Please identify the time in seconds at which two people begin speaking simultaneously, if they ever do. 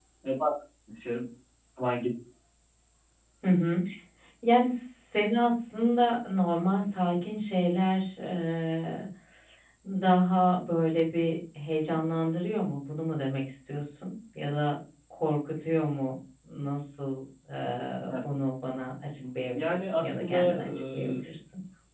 19.2 s

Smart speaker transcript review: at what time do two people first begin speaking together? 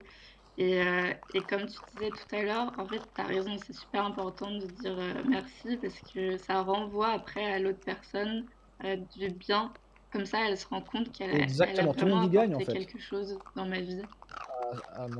11.3 s

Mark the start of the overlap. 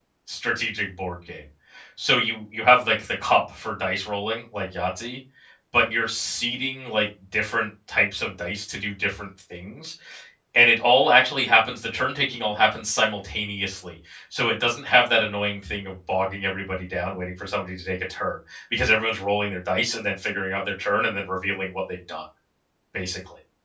none

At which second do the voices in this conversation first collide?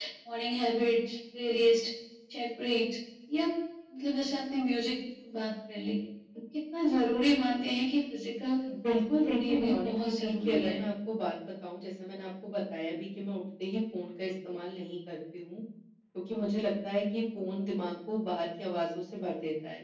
9.1 s

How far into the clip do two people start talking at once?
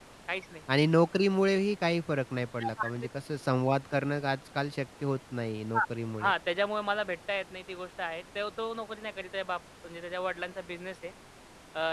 none

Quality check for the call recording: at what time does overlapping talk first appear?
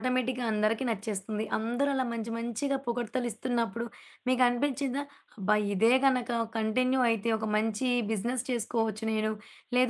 none

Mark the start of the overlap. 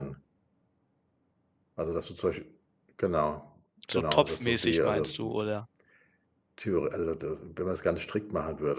3.8 s

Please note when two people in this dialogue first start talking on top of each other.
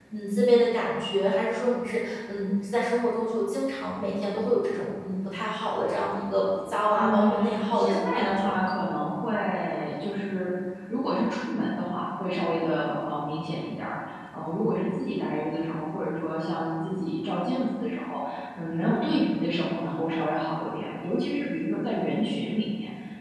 6.9 s

